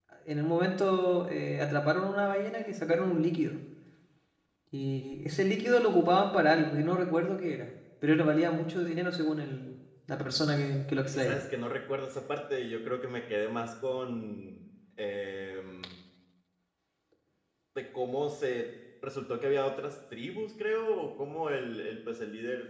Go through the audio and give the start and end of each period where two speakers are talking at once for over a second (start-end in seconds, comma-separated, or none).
none